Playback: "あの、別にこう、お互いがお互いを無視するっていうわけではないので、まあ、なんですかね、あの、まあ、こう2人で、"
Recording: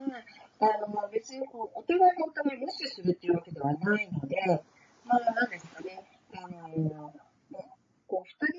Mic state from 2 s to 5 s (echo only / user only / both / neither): echo only